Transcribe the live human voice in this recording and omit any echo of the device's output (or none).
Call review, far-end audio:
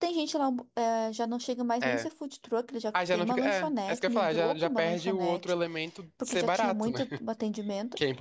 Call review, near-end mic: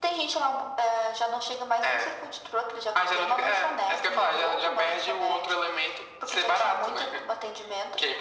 none